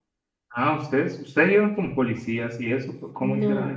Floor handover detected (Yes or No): Yes